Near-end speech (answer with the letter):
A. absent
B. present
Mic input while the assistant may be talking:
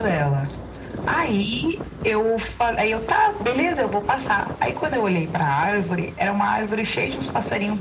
A